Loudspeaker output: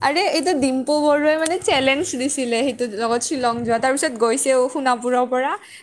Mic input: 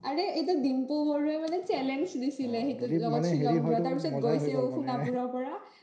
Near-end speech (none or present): present